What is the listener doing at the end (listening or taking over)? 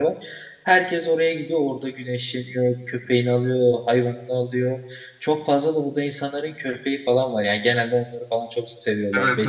taking over